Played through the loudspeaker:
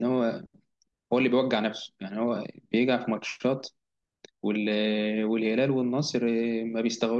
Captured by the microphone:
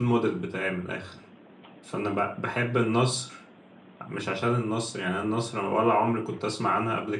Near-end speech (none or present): present